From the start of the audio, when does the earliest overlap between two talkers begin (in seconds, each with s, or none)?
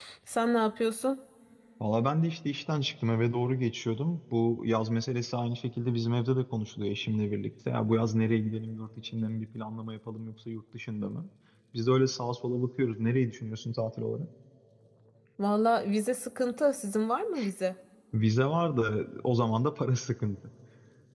none